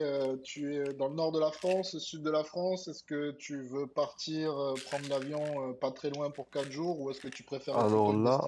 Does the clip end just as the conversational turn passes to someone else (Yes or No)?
No